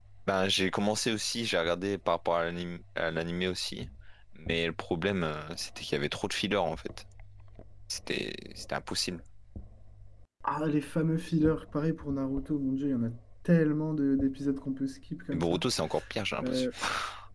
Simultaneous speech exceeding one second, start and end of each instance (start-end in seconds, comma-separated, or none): none